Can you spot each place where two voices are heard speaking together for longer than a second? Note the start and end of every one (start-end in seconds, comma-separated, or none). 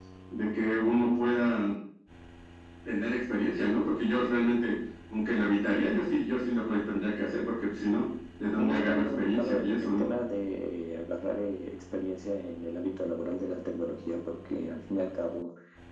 8.6-10.1